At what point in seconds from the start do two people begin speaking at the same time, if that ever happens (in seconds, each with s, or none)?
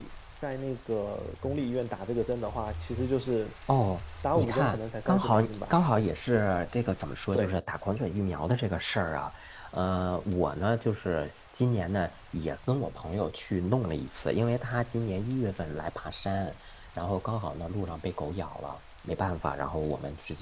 4.4 s